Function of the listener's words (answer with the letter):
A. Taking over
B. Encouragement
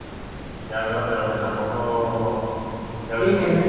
A